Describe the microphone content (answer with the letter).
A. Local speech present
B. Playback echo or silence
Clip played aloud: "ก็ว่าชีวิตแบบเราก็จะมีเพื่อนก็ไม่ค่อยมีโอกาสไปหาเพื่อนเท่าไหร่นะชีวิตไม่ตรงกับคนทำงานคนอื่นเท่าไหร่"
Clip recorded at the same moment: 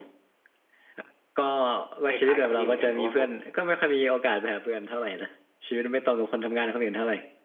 A